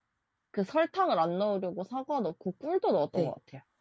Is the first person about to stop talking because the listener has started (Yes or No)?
Yes